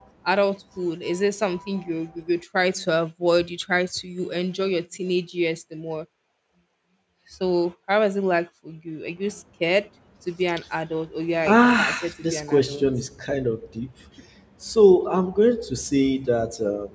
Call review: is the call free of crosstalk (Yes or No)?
No